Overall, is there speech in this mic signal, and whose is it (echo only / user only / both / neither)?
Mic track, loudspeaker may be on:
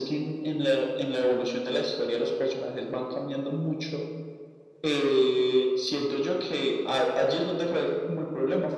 echo only